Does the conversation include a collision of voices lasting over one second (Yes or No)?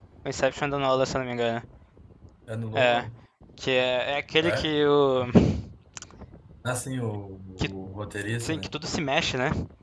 No